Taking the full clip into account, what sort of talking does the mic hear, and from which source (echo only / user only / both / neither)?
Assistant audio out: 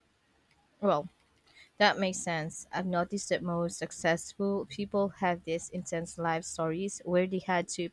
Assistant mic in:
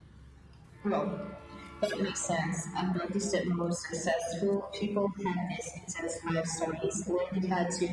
echo only